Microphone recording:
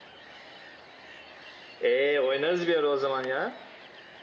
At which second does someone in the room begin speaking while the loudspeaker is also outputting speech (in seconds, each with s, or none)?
1.8 s